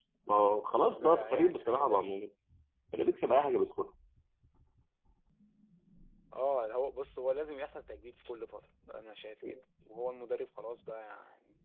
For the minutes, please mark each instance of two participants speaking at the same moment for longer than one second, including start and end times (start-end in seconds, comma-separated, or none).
1.0-2.2